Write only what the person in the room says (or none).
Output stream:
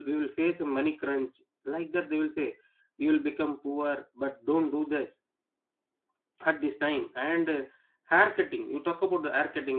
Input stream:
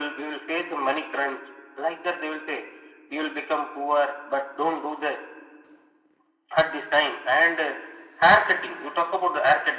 none